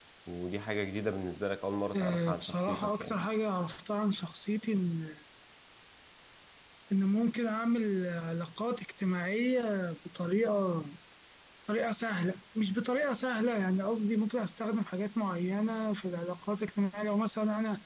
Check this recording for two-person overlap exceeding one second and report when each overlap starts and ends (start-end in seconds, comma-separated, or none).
1.9-3.2